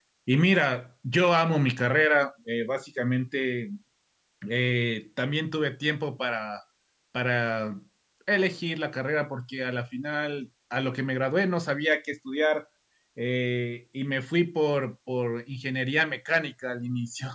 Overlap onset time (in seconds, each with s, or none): none